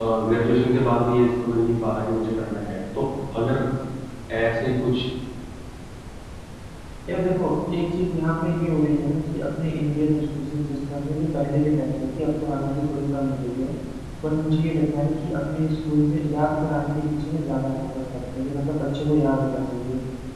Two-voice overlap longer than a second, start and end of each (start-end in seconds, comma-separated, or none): none